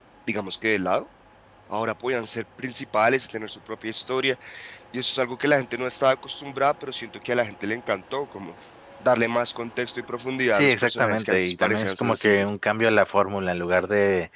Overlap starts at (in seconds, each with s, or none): 10.5 s